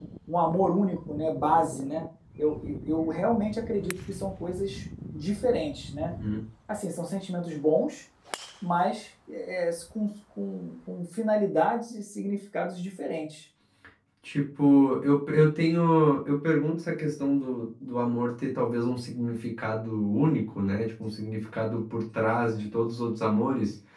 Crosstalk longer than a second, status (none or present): none